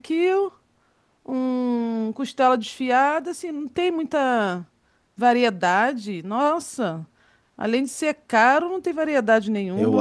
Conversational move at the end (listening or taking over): taking over